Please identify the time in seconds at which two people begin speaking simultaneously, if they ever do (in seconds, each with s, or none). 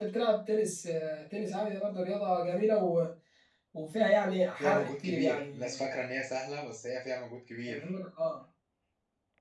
4.5 s